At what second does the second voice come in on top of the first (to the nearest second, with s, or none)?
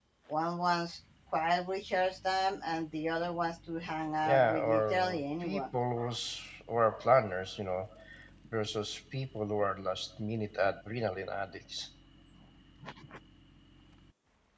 4 s